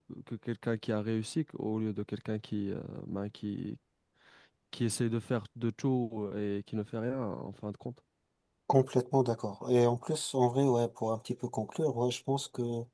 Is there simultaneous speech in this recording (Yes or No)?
No